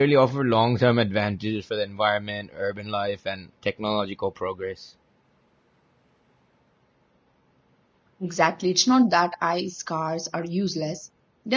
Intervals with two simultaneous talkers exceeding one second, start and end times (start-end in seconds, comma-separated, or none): none